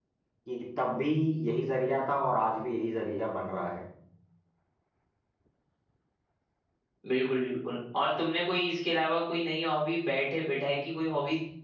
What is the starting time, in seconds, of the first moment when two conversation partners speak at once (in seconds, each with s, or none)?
none